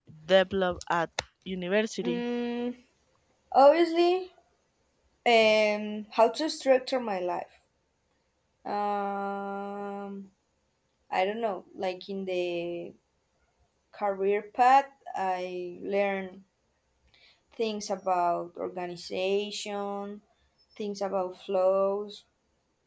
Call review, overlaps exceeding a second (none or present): none